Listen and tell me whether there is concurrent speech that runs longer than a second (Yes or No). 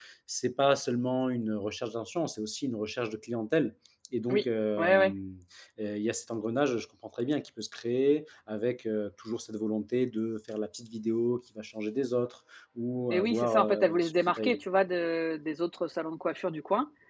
Yes